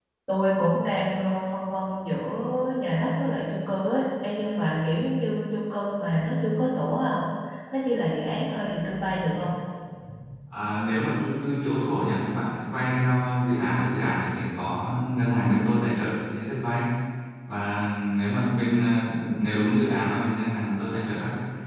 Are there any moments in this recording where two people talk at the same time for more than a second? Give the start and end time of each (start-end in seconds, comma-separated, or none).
none